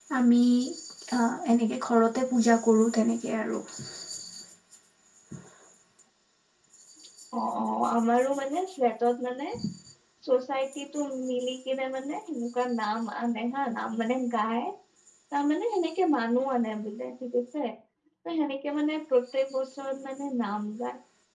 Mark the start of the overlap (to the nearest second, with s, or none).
none